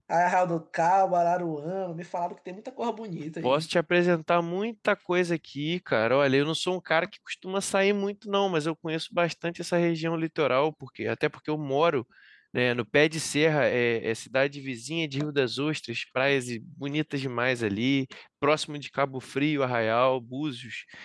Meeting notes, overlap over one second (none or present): none